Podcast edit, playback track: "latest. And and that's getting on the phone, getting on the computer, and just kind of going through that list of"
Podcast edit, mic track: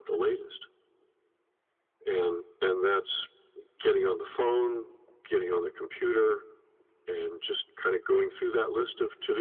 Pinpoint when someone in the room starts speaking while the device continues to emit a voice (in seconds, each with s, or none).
none